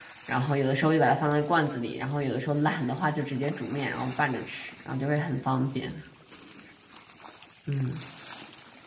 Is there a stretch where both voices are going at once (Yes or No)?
No